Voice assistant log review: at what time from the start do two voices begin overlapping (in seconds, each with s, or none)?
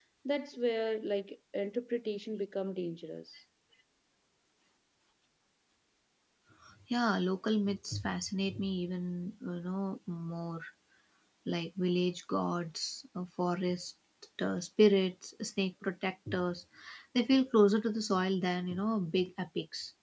none